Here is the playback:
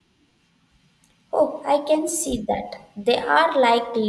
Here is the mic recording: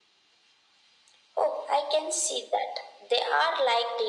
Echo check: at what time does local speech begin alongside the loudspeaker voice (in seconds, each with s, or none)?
none